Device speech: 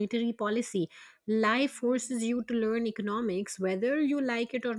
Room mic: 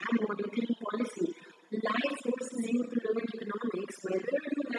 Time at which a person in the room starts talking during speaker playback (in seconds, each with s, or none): none